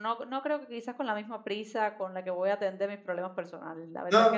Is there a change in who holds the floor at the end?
Yes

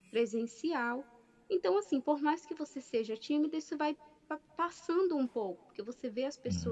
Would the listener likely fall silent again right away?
Yes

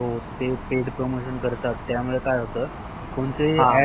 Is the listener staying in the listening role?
No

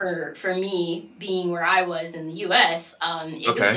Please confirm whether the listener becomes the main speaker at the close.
No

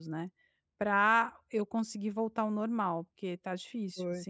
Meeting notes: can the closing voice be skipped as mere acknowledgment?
No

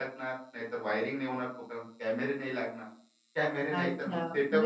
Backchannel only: No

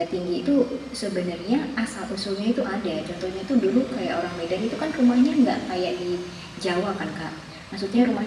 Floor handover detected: No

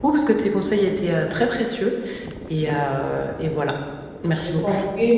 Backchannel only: No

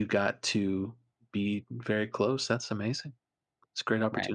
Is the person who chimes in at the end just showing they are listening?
No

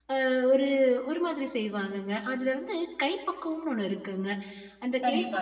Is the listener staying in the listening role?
Yes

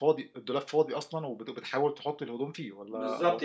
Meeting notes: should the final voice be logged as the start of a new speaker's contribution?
Yes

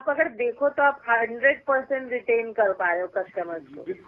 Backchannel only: No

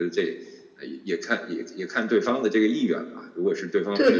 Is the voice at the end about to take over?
Yes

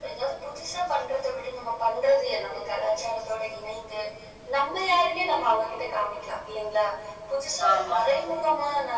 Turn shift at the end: No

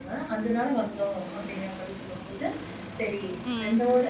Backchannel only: Yes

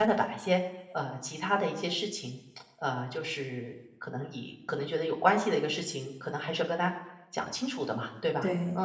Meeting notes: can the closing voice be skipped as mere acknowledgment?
No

